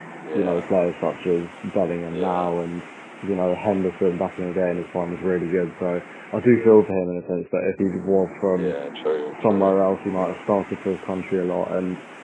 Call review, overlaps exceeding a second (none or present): none